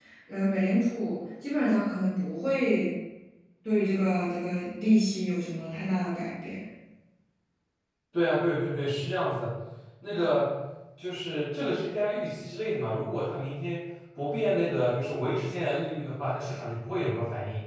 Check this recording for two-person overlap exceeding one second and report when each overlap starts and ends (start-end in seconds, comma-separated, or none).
none